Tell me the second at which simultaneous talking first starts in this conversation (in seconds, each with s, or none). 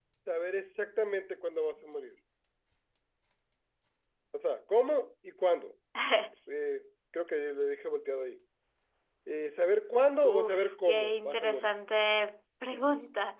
10.2 s